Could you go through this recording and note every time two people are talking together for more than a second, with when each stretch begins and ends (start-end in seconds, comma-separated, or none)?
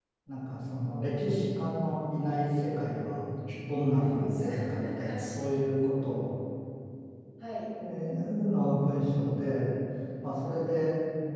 4.2-5.6